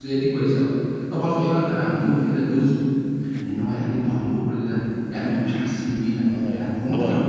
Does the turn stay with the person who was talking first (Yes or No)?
No